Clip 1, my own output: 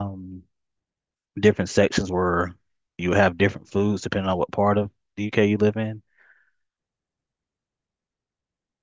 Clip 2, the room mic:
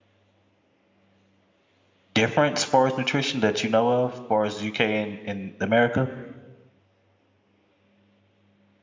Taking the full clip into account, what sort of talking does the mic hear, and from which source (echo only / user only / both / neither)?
user only